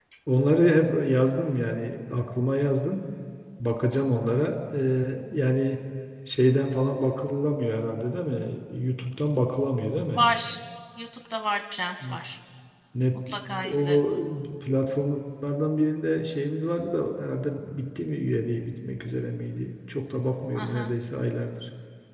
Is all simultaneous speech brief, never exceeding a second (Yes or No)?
Yes